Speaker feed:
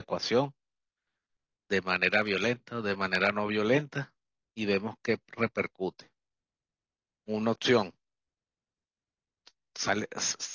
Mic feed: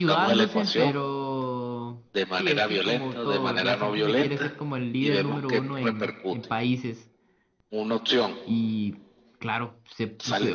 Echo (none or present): present